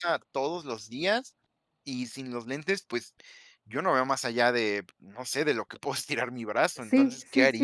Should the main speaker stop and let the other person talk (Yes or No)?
Yes